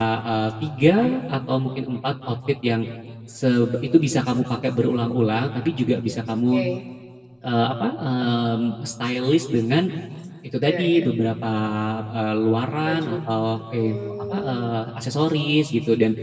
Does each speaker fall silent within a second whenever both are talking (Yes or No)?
No